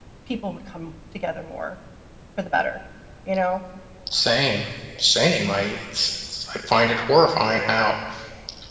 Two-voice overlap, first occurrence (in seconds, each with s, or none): none